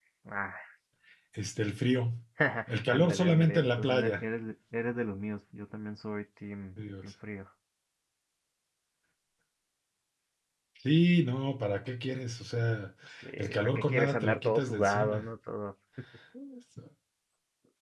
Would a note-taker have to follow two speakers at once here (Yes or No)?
Yes